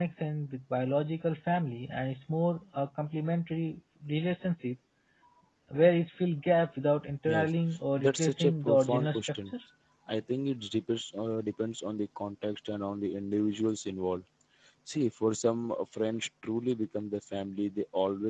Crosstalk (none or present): present